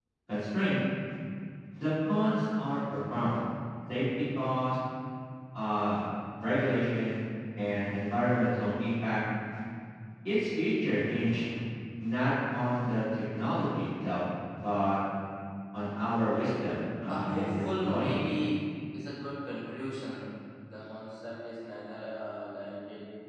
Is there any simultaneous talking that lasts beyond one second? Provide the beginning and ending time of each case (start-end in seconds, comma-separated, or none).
17.0-18.3